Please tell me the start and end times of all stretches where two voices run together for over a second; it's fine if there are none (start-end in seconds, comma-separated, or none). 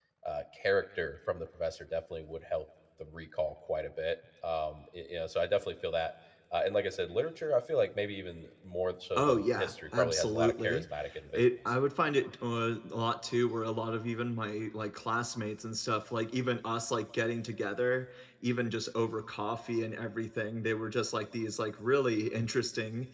9.2-10.9